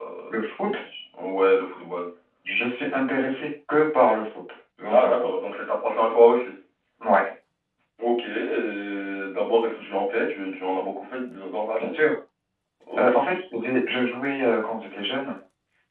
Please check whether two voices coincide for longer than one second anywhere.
No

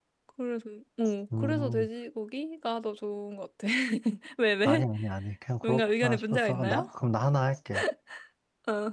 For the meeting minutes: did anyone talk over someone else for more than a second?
Yes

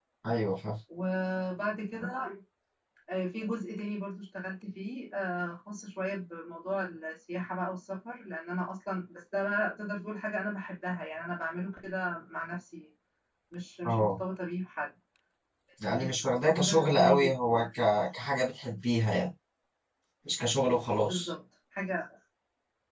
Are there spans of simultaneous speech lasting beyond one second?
Yes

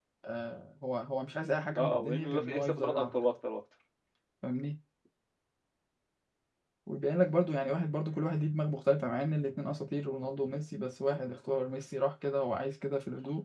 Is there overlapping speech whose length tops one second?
Yes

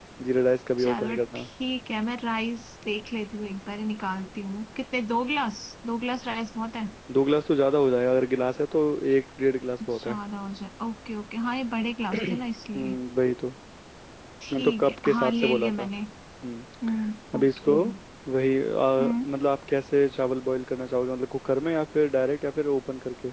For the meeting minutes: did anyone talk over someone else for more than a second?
Yes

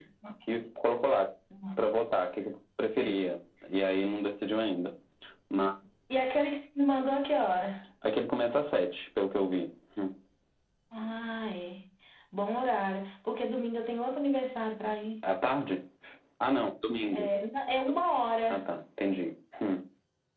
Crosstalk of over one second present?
No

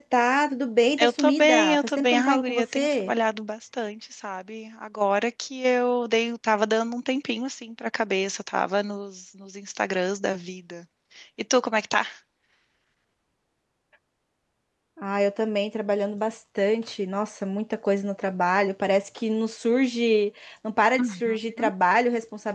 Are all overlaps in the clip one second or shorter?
No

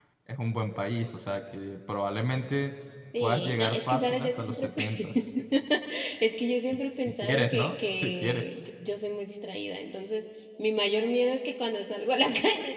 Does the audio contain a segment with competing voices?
Yes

